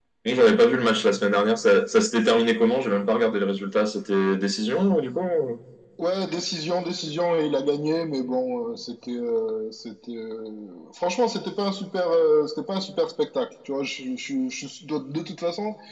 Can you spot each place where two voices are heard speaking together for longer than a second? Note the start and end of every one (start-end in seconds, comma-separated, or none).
none